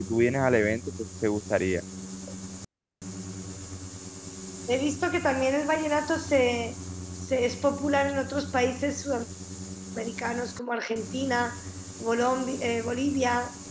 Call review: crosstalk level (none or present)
none